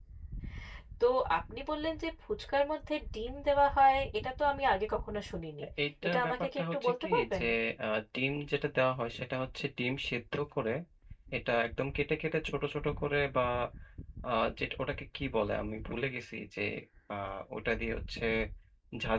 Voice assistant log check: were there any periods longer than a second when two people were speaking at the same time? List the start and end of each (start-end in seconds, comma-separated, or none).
6.0-7.4